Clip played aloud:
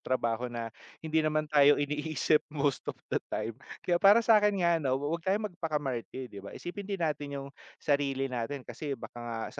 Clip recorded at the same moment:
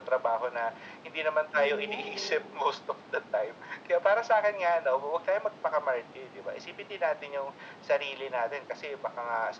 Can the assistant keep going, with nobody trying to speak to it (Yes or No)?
No